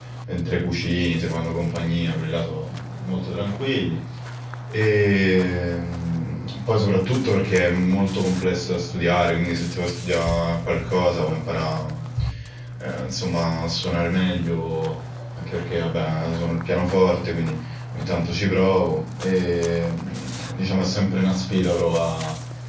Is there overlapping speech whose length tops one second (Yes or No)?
No